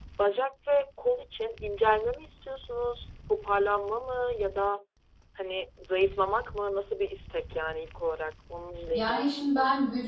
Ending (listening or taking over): taking over